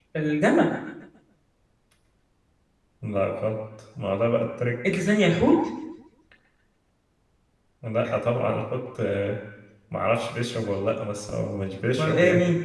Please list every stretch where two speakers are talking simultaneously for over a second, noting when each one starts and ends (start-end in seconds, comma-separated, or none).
none